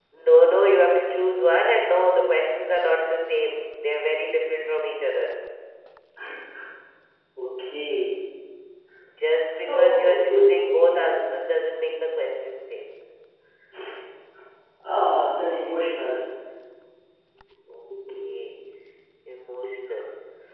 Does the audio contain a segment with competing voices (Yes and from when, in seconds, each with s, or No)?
Yes, from 9.5 s